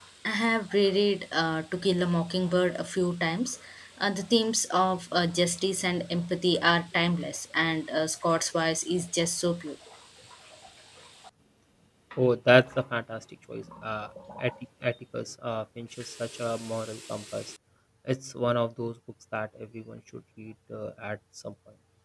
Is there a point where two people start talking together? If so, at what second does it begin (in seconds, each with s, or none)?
none